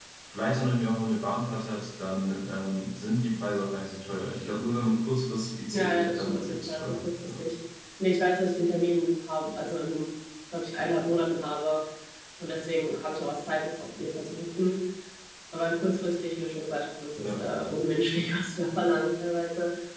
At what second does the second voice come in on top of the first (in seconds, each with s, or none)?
5.7 s